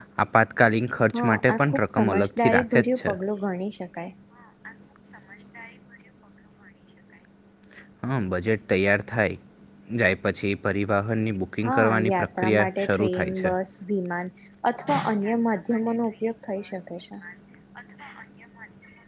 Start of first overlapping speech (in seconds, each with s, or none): 1.1 s